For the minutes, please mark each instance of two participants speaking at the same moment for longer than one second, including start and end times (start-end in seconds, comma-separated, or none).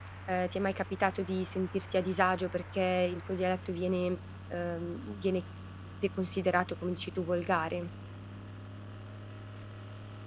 none